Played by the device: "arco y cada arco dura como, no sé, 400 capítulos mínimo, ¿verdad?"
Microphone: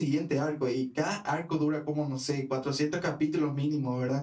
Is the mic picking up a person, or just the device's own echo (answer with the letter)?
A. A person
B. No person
B